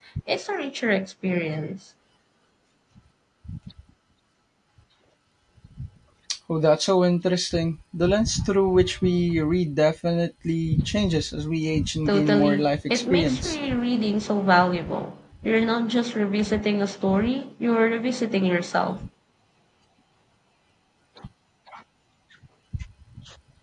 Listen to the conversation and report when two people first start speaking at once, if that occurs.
12.1 s

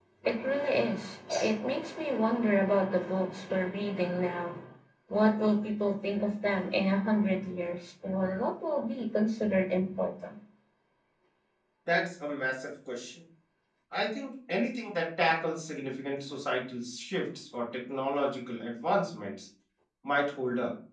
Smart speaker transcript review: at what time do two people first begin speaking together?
none

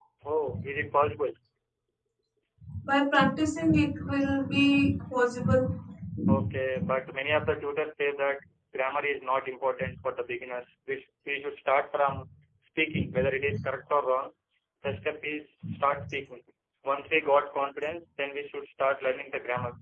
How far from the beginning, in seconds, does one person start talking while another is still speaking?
none

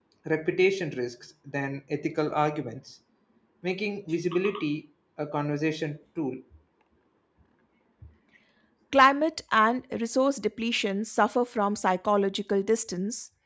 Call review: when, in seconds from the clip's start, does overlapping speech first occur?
none

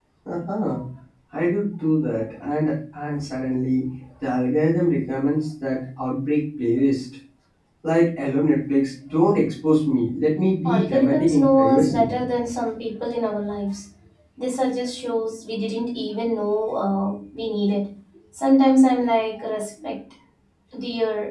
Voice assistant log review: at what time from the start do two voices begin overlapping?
10.6 s

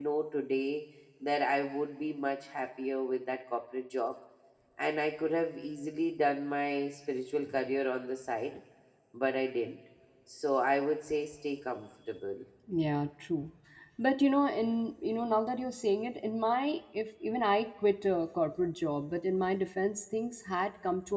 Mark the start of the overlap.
none

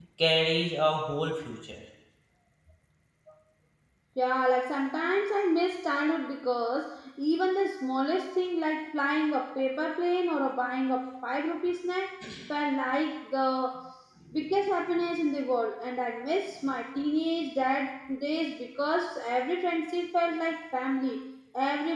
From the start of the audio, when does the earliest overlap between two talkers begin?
none

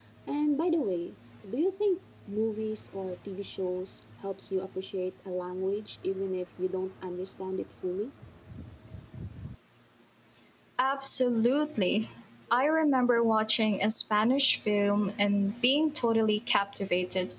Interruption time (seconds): none

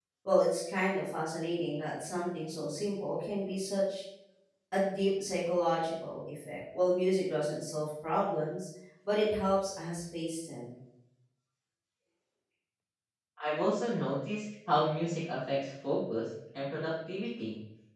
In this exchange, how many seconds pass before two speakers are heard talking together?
none

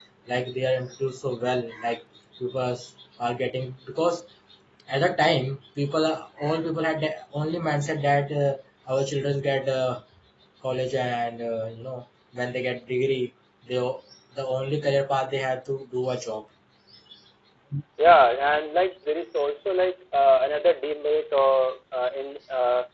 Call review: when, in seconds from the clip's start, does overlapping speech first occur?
none

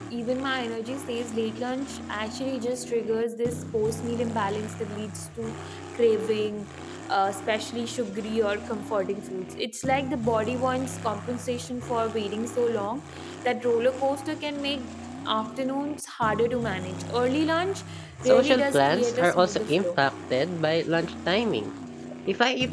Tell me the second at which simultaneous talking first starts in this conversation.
18.2 s

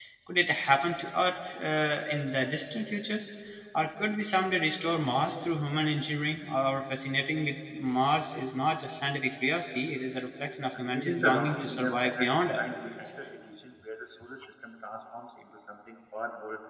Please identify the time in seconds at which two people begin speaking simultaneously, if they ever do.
10.8 s

